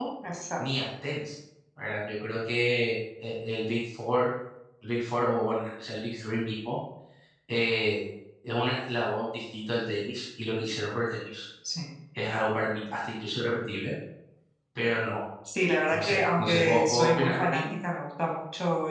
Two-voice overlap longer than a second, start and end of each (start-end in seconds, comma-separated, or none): 15.9-17.6